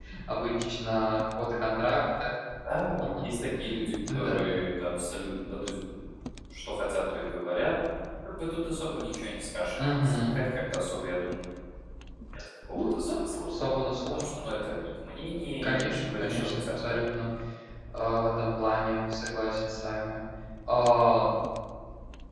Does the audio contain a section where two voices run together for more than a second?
Yes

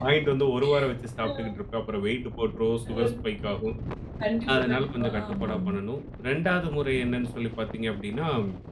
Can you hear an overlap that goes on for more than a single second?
Yes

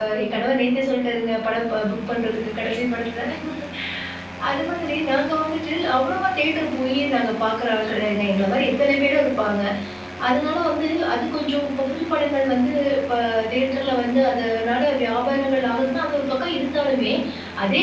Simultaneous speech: No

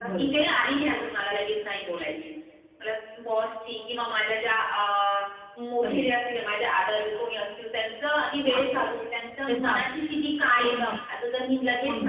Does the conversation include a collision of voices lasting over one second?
No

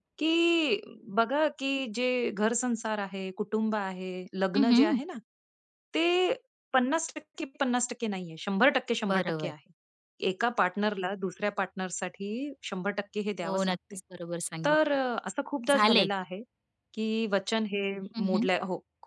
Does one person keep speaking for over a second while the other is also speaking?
No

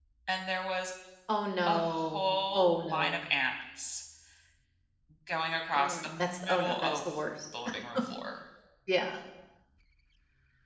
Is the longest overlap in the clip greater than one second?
Yes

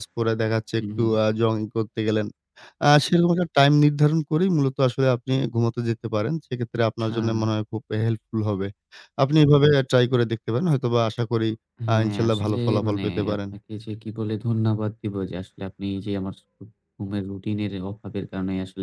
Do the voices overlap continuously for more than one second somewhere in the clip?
Yes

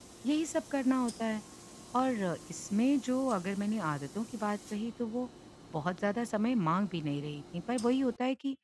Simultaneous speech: No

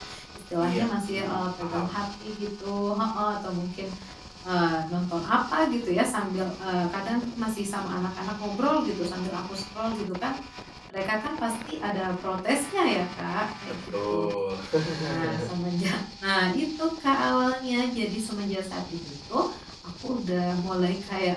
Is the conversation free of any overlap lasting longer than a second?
No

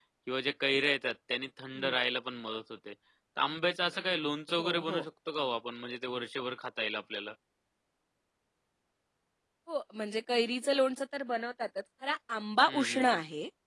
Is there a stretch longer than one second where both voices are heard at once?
No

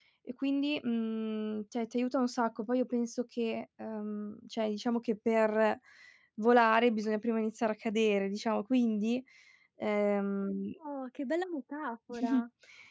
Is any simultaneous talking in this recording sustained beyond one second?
No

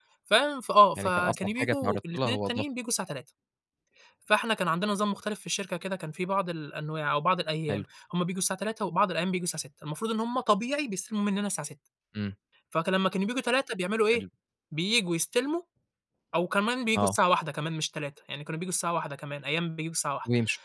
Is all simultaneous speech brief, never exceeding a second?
No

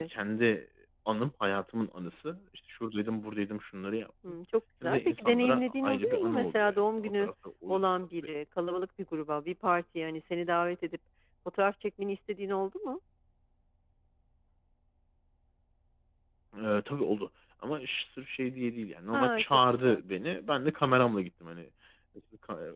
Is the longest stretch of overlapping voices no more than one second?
No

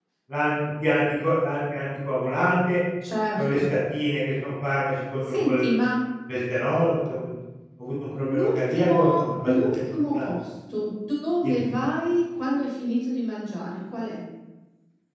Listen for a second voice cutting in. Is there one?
Yes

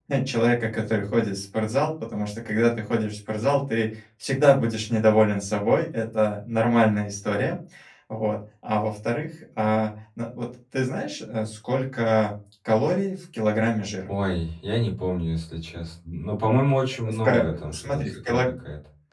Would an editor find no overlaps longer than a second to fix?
No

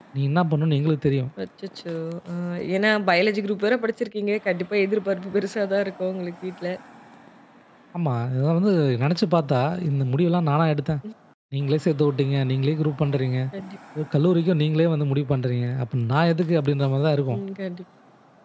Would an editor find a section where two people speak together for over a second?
No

